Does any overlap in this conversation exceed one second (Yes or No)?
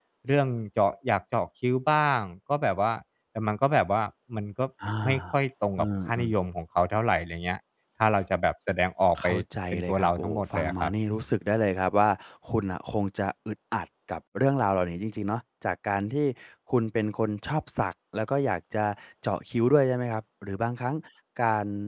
Yes